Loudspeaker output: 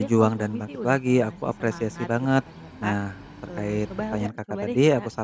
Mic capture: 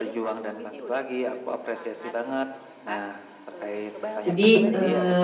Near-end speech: present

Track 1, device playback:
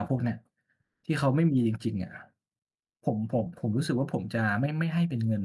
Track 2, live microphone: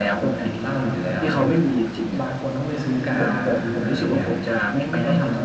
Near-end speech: present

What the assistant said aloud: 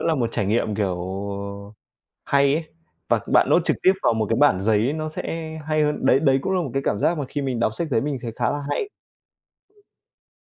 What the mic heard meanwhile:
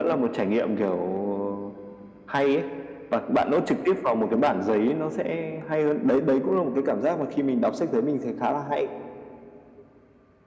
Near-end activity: none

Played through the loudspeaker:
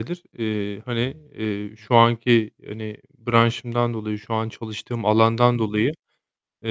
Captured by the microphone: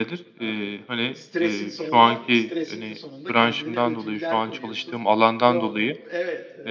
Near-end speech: present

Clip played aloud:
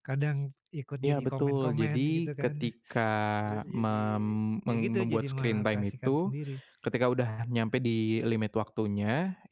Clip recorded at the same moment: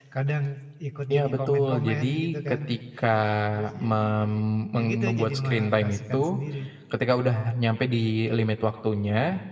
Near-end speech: none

